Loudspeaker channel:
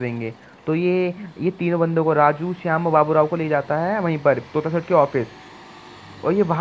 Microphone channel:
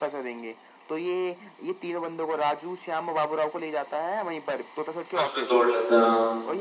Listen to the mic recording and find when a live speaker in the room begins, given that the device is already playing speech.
5.1 s

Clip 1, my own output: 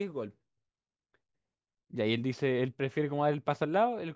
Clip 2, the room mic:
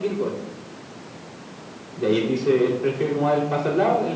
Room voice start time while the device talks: none

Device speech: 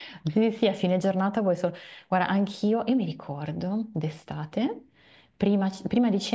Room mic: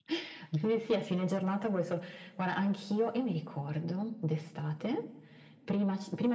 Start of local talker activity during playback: none

